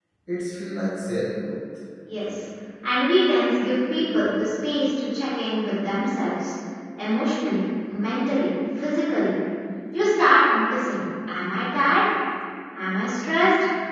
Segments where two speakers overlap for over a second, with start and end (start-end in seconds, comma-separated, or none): none